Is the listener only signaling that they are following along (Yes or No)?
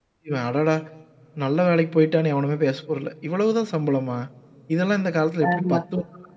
Yes